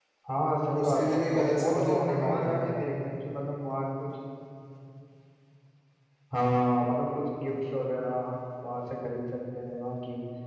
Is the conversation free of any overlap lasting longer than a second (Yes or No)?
No